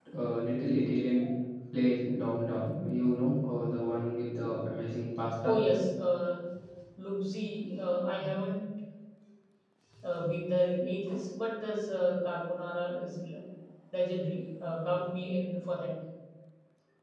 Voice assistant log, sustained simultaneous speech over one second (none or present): none